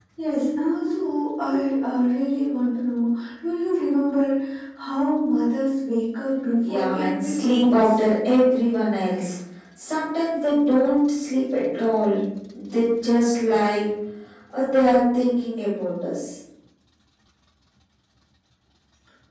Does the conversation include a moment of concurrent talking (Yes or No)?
Yes